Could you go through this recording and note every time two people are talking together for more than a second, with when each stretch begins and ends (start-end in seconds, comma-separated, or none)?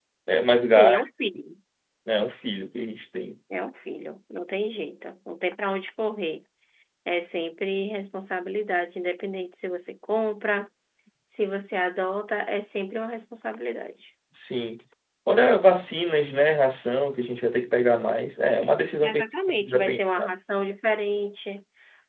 19.0-20.3